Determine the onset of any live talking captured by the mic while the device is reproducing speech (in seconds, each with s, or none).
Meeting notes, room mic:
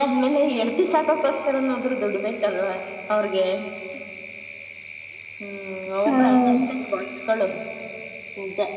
6.1 s